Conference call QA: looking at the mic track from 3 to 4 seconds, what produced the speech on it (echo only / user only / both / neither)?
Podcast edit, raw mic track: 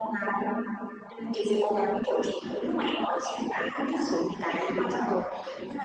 echo only